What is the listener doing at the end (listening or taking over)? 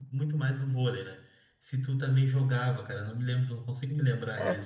taking over